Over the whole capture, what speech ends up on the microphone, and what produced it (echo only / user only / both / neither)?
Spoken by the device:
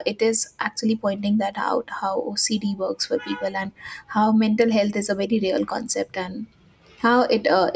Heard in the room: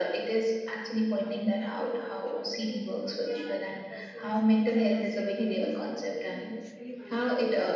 both